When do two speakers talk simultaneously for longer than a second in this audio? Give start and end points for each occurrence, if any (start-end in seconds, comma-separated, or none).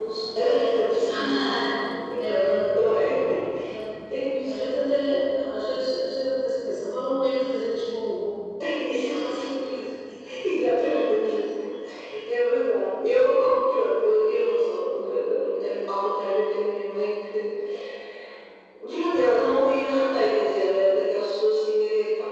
none